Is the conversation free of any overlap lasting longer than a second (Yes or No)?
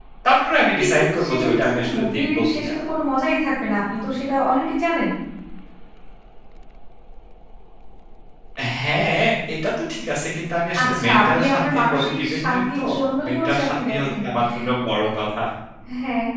No